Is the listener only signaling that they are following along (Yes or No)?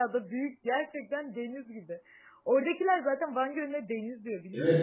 No